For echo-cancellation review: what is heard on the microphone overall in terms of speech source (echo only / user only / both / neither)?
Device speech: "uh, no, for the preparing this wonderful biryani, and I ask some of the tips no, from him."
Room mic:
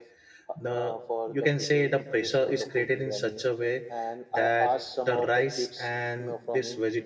both